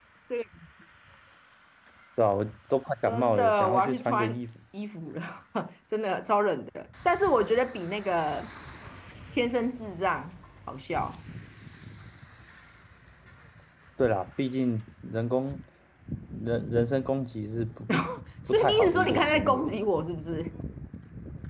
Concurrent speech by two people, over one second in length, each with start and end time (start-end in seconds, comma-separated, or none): 3.1-4.4, 18.5-19.7